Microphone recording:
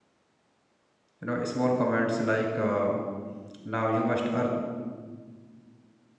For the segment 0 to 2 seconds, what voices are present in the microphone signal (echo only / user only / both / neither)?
user only